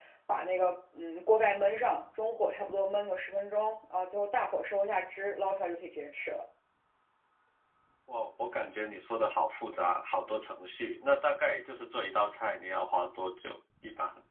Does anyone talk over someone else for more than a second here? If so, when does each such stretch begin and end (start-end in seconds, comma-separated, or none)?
none